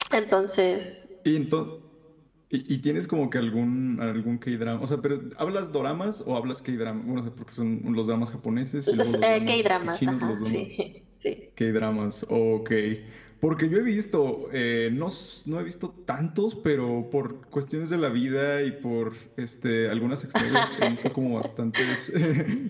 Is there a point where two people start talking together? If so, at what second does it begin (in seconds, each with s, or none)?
8.9 s